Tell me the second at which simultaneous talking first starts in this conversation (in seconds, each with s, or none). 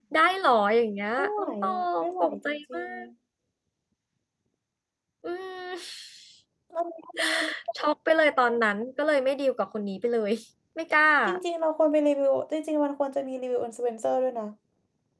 1.2 s